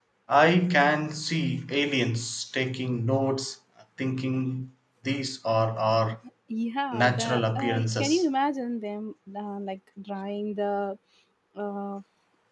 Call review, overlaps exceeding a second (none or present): present